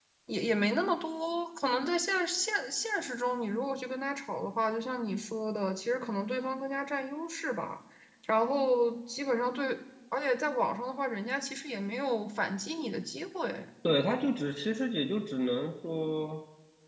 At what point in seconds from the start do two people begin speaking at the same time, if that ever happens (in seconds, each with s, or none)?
none